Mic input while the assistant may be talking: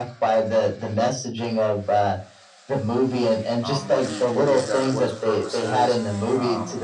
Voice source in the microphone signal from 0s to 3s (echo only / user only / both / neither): echo only